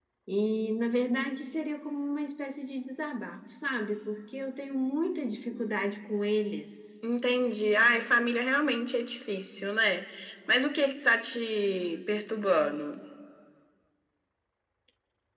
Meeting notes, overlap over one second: none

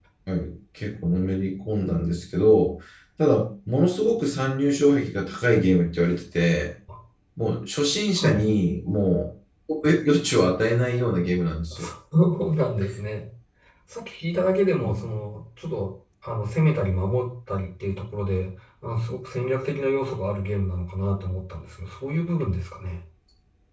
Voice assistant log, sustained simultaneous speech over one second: none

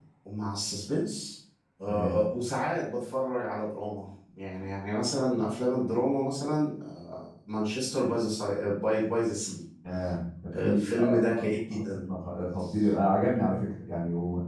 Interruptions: present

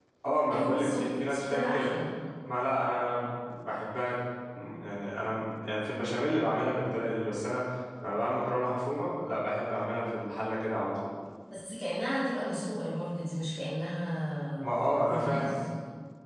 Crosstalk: present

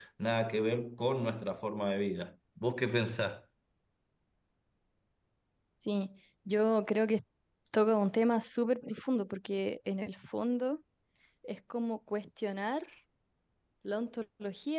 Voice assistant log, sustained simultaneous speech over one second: none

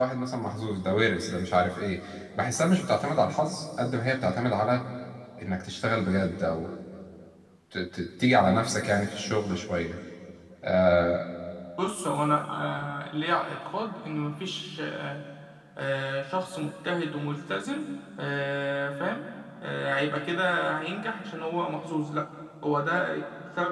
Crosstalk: none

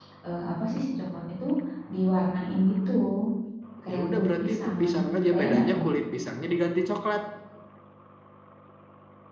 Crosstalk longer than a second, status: present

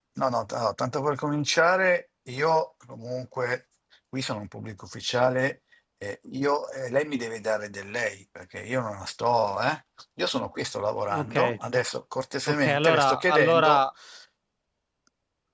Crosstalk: present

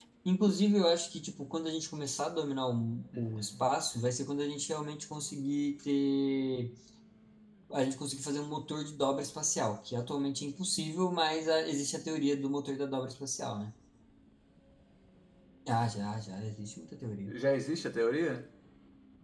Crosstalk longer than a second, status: none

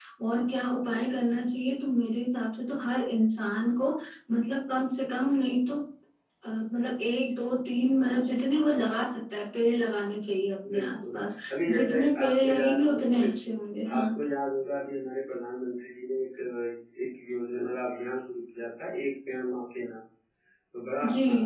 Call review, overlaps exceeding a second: present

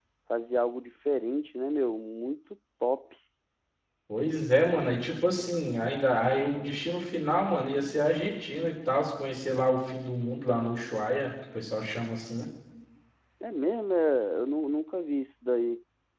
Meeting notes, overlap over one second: none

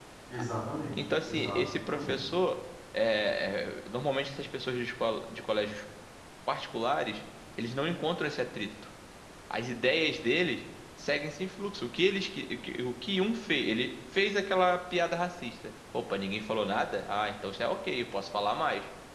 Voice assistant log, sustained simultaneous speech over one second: present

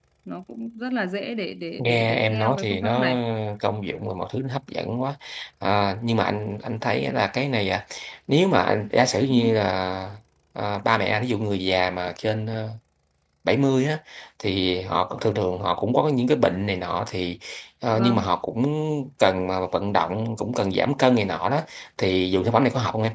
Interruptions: present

